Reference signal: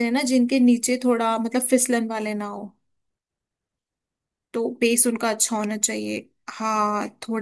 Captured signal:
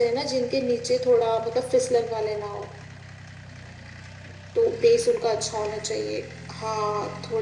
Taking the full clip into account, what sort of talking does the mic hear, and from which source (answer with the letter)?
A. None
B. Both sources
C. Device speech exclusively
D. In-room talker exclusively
C